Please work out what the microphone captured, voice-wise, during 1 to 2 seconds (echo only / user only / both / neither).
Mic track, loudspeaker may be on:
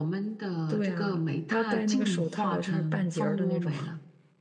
both